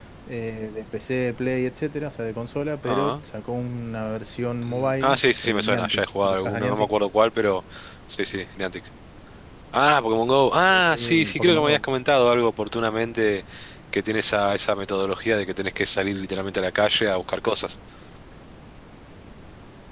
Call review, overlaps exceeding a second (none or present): present